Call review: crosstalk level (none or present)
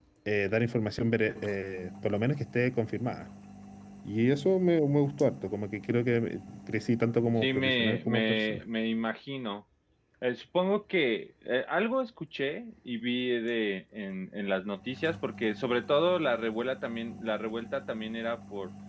present